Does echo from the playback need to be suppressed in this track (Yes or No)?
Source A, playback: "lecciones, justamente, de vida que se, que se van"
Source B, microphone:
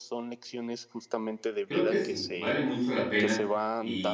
Yes